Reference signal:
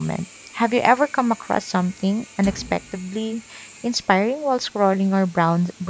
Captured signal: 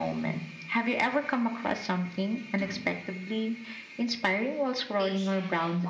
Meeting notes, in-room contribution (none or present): present